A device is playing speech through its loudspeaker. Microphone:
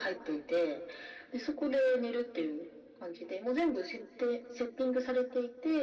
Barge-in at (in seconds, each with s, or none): none